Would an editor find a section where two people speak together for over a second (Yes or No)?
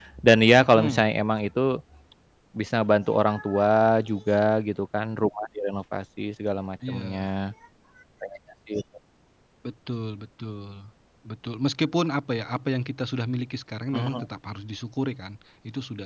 No